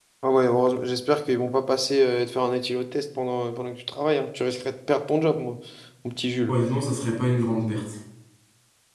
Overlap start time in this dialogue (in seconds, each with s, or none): none